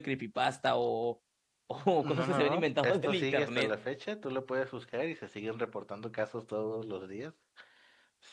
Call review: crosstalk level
present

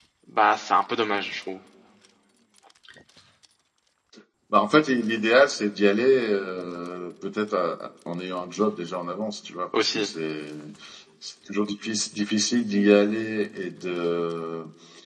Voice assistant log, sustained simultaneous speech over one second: none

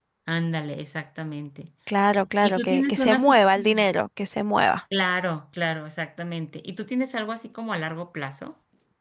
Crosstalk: present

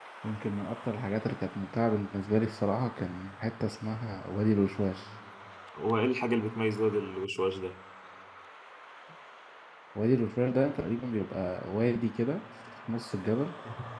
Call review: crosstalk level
none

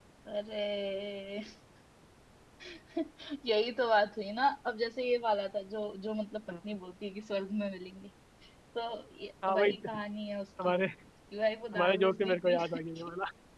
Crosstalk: present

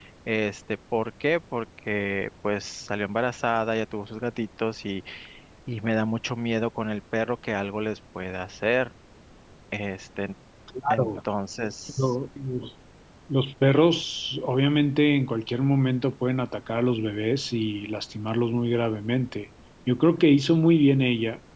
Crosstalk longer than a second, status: none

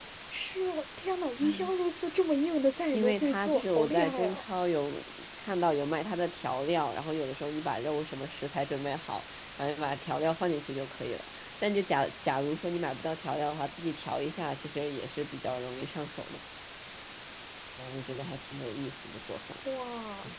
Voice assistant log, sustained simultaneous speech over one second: present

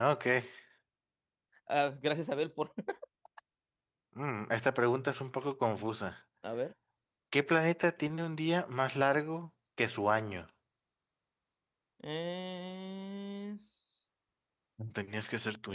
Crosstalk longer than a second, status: none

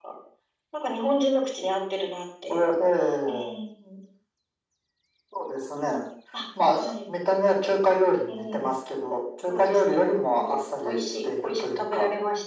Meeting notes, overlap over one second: present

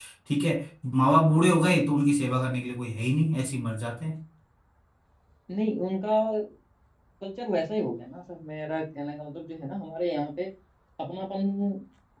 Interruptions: none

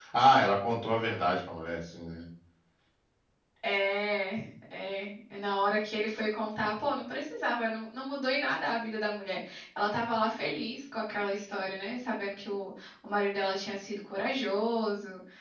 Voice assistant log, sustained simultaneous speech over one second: none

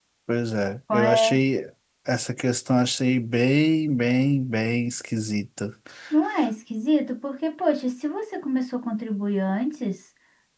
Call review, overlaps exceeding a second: none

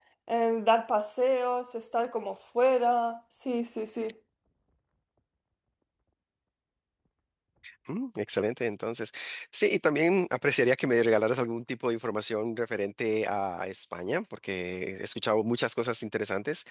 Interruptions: none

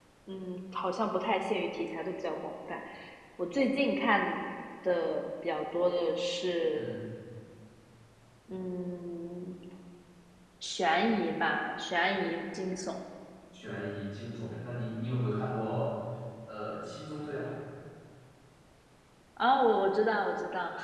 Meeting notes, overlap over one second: none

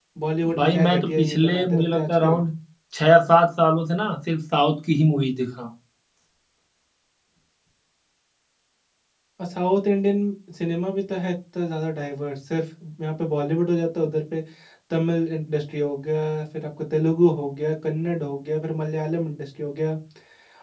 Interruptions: present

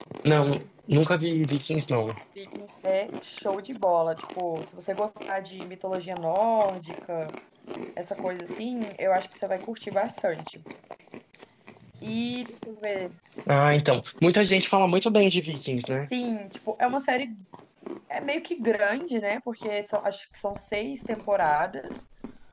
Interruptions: none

